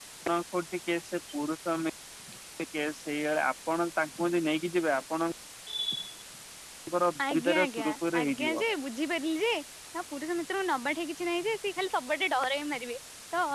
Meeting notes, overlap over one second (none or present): present